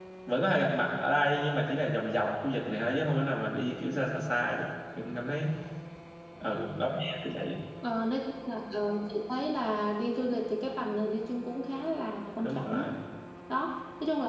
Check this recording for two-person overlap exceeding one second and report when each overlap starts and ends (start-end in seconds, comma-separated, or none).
none